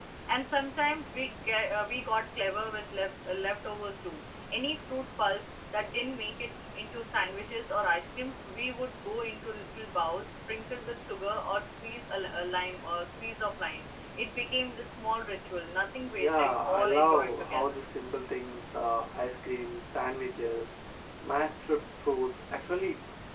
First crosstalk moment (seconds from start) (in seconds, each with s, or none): 16.2 s